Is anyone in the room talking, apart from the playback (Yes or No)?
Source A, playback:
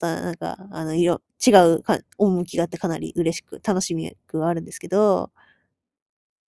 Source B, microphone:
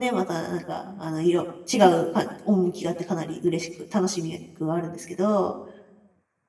No